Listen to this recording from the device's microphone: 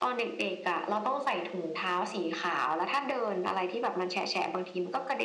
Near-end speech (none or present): none